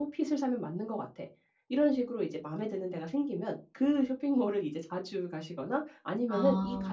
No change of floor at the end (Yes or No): Yes